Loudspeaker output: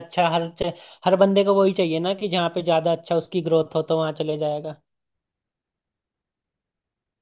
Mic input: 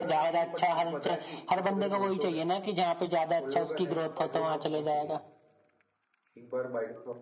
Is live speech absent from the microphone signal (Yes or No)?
No